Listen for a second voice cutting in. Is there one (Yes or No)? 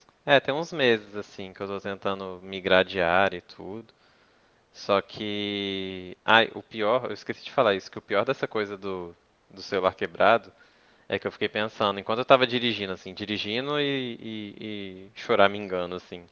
No